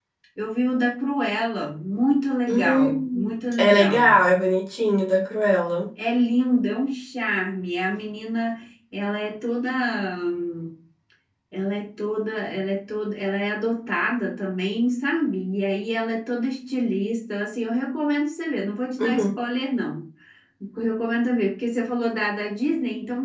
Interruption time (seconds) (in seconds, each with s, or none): 2.5 s